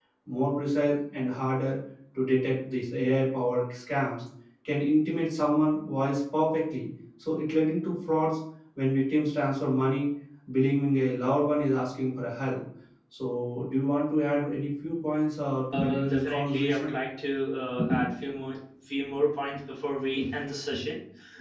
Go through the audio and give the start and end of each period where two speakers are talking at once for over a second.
15.7-16.9

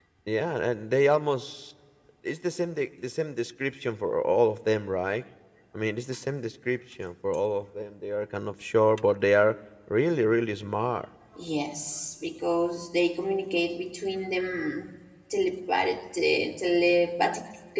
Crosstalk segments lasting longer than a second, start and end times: none

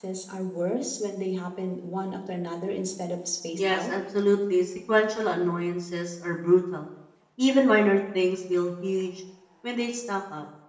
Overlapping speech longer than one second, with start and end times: none

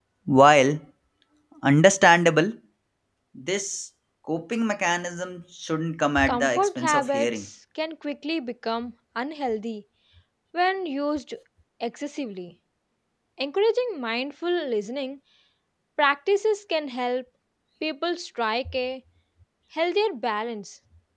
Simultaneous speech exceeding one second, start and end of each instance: 6.3-7.5

